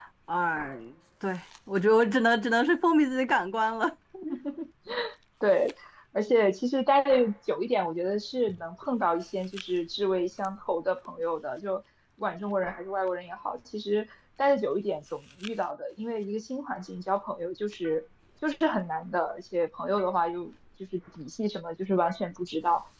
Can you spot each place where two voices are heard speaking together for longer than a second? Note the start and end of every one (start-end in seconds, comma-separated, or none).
none